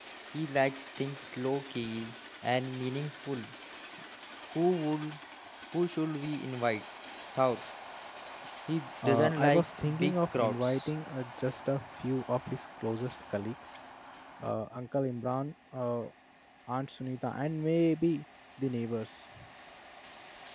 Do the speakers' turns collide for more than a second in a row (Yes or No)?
Yes